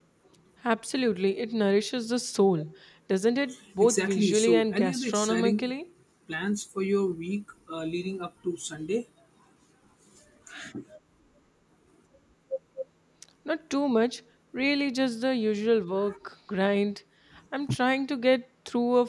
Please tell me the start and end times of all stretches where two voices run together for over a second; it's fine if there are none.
3.8-5.7

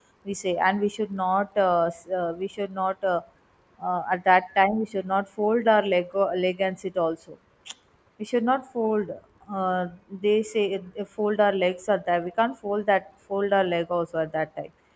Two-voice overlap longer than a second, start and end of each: none

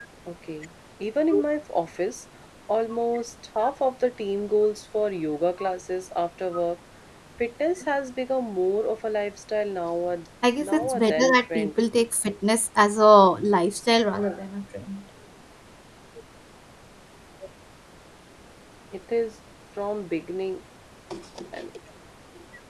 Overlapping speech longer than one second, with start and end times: 10.6-11.8

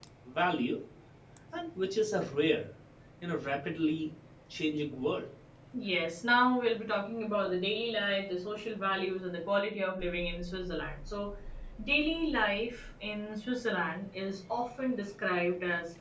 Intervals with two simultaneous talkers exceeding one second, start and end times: none

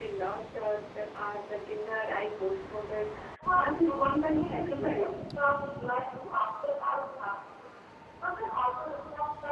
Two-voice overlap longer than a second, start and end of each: 3.6-5.2

